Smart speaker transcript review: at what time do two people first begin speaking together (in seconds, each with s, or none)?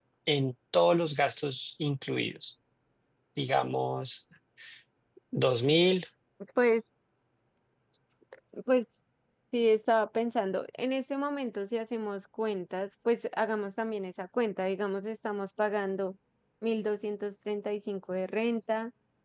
none